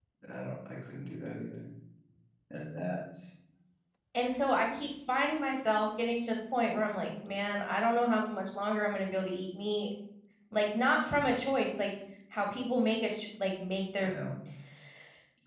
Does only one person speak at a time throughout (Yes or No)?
Yes